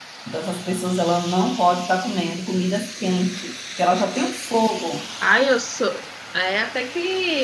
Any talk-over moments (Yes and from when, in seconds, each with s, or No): No